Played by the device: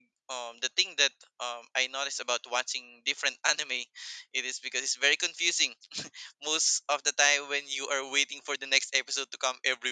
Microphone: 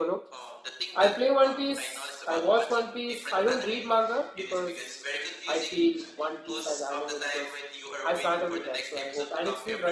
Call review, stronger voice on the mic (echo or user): user